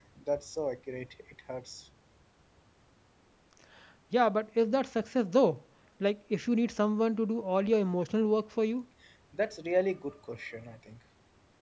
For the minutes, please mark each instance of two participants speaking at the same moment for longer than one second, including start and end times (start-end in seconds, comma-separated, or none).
none